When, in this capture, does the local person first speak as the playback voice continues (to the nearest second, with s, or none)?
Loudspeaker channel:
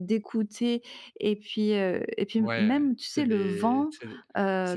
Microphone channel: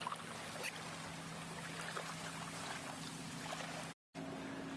none